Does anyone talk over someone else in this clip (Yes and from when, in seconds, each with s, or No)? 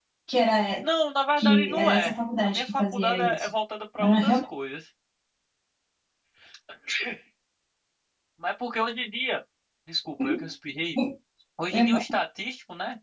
Yes, from 1.4 s